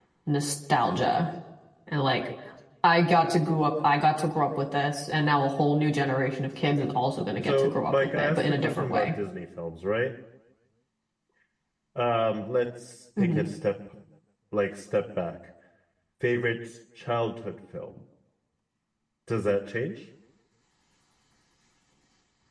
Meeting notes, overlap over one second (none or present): present